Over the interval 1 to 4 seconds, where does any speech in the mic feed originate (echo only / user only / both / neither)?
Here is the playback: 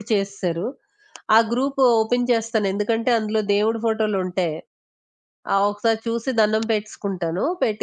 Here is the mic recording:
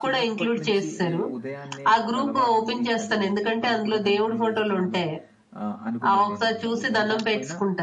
both